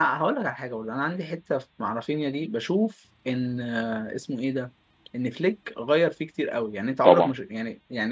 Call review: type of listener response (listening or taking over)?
listening